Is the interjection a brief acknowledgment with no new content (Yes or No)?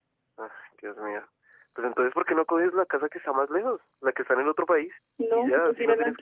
No